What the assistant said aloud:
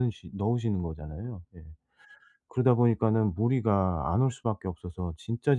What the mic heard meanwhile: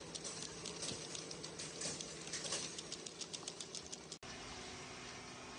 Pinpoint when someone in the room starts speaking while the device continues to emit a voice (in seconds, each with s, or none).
none